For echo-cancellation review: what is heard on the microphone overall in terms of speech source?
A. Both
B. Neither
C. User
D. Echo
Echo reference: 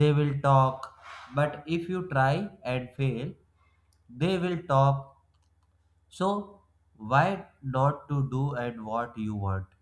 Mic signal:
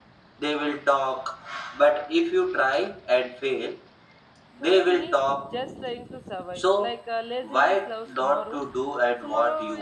A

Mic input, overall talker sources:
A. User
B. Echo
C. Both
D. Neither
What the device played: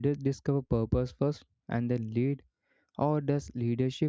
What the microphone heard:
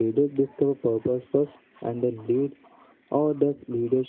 B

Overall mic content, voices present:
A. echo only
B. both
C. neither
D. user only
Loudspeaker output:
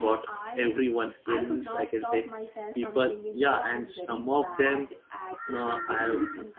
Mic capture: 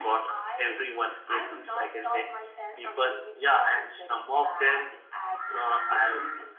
A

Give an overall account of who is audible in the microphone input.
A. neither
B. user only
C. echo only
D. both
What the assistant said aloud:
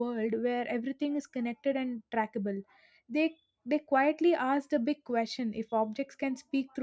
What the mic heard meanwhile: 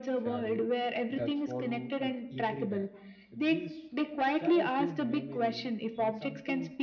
D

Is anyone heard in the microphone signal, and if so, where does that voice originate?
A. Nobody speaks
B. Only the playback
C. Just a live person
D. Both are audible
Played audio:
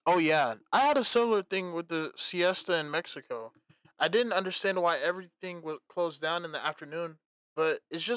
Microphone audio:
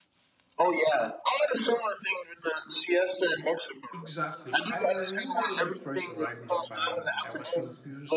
D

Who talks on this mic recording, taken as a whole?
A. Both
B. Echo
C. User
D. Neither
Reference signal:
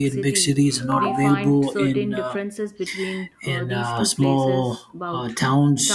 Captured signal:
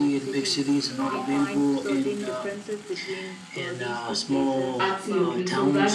A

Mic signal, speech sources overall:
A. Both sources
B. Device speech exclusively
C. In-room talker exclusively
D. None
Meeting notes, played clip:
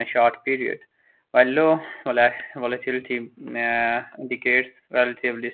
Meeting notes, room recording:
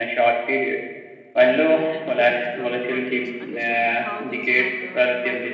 A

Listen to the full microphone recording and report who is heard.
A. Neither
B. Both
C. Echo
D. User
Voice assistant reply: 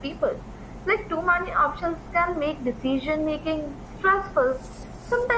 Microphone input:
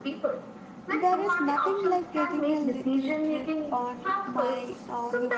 B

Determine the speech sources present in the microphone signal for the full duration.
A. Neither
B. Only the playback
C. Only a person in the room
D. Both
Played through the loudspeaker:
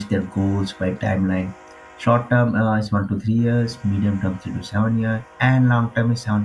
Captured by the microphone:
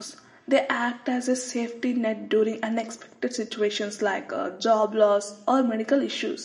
C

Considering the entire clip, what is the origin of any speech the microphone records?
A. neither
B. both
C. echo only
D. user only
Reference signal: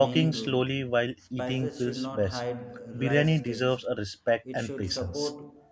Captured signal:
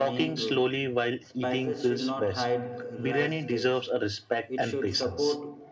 C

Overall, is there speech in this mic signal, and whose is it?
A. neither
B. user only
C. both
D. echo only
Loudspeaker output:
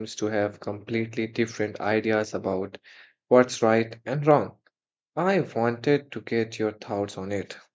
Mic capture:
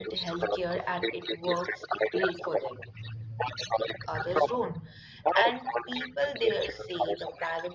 C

